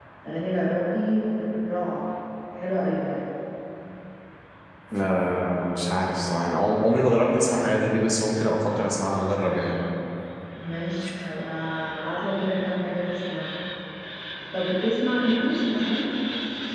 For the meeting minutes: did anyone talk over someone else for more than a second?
No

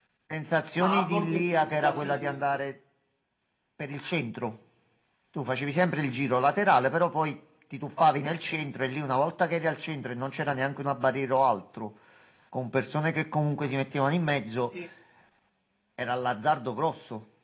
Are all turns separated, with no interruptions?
No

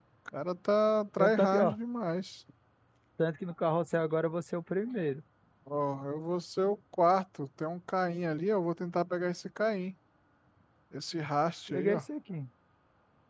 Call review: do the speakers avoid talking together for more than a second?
Yes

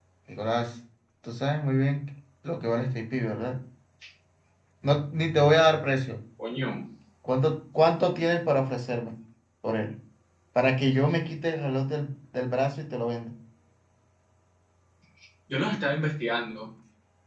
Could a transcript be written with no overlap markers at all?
Yes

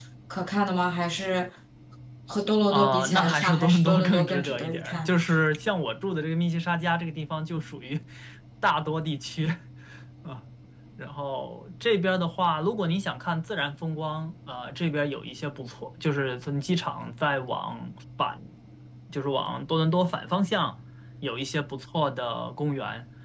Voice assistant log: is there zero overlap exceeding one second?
No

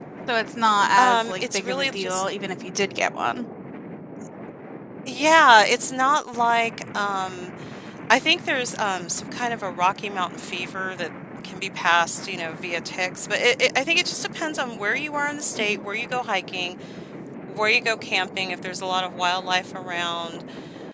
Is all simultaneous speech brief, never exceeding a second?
No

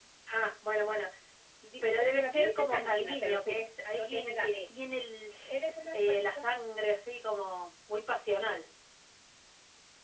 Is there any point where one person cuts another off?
Yes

